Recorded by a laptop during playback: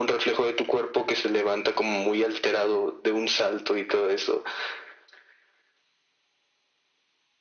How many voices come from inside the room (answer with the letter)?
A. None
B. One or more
A